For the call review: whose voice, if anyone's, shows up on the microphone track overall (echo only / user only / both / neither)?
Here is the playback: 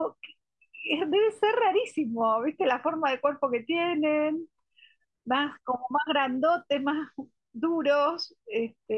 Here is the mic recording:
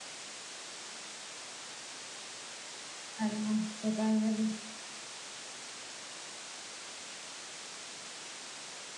user only